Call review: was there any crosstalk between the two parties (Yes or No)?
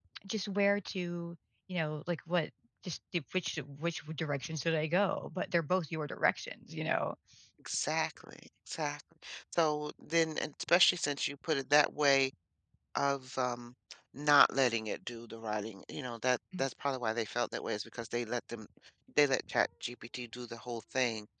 No